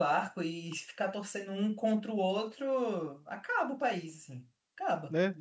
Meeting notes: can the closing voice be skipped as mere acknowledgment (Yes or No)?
No